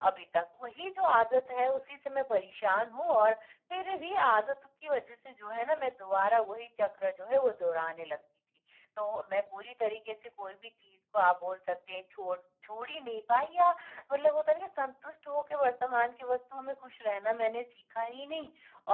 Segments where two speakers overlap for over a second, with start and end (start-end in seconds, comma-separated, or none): none